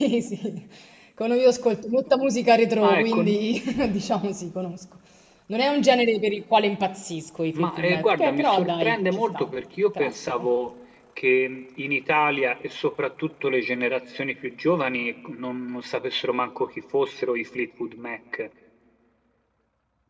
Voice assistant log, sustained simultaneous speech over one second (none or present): present